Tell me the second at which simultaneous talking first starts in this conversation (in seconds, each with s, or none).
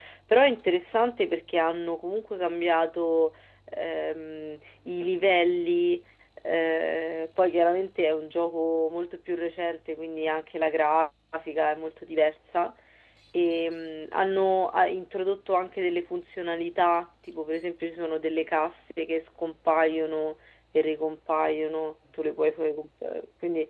none